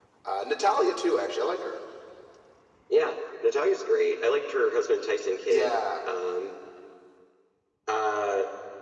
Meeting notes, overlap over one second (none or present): none